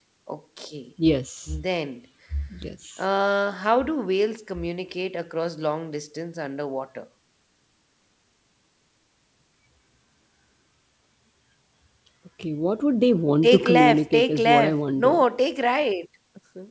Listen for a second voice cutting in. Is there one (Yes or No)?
Yes